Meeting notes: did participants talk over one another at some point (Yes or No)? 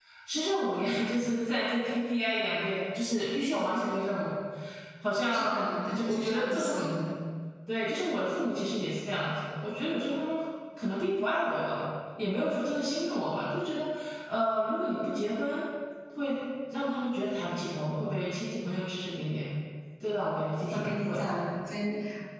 Yes